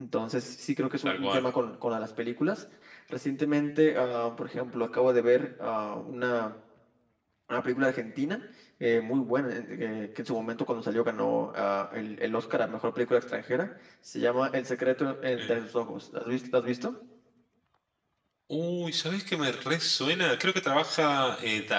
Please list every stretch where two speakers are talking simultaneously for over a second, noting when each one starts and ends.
none

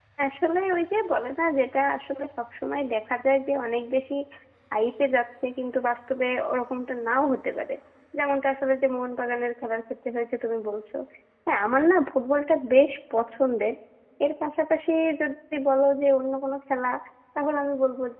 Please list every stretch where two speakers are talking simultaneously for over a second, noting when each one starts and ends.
none

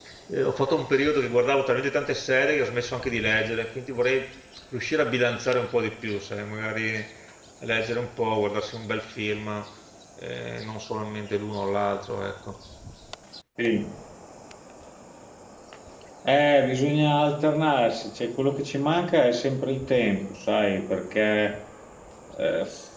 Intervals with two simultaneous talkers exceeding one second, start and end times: none

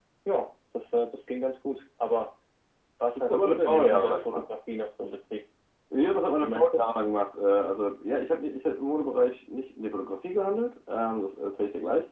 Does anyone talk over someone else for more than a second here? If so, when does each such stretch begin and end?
3.2-4.4

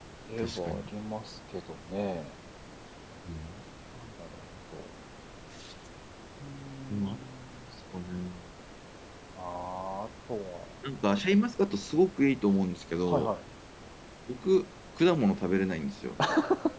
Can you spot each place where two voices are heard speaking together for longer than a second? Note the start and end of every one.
none

